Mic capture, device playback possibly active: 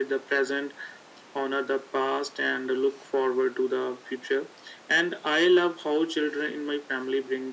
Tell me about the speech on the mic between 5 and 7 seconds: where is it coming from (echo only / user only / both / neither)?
echo only